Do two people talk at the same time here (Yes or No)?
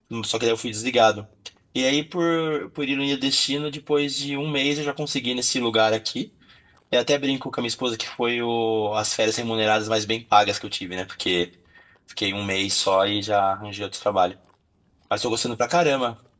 No